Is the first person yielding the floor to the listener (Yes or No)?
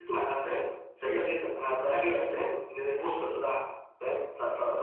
Yes